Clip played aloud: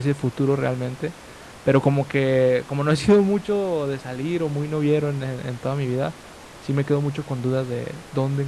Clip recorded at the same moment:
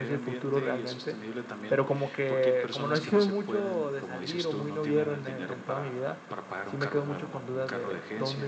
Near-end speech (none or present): present